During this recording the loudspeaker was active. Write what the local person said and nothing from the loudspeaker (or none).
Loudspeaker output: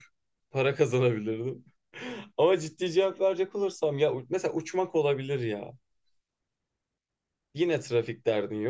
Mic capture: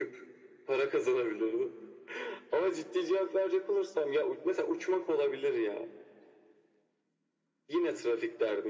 none